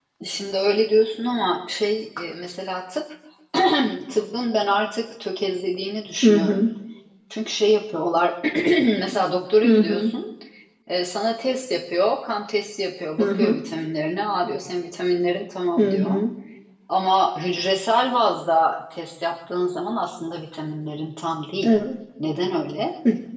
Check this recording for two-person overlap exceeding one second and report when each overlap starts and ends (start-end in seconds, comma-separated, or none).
none